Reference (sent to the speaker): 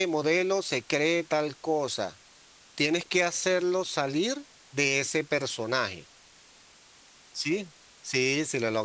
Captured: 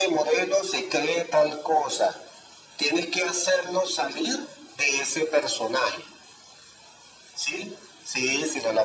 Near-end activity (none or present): none